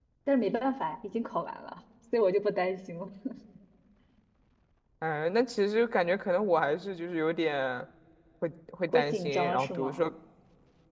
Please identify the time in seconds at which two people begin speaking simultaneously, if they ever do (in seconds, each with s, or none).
8.9 s